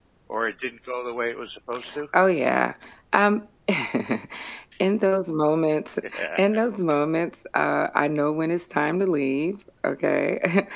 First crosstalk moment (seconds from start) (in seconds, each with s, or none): none